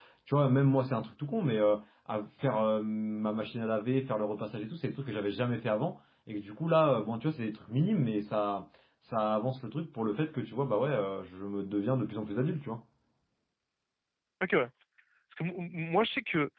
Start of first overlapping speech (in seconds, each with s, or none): none